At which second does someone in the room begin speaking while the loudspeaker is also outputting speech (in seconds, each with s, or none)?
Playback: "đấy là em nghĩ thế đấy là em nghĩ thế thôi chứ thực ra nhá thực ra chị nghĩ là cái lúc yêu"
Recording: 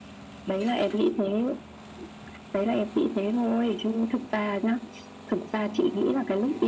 none